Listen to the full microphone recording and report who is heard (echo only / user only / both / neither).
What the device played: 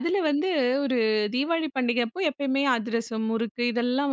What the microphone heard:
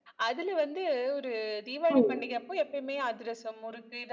both